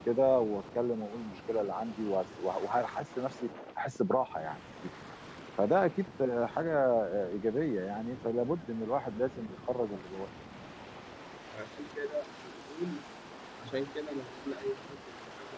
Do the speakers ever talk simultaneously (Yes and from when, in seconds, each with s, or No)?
No